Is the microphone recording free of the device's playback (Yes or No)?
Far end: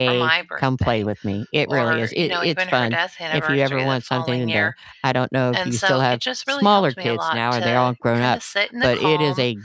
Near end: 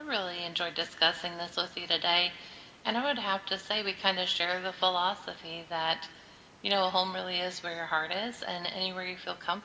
Yes